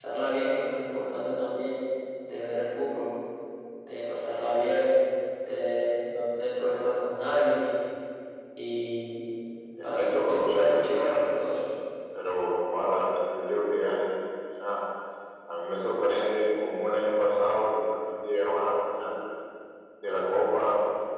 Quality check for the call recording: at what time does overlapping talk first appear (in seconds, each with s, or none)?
9.8 s